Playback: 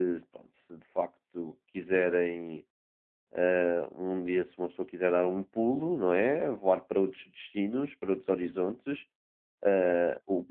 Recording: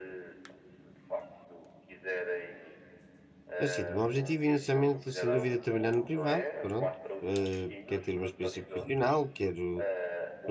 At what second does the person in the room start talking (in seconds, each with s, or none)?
3.6 s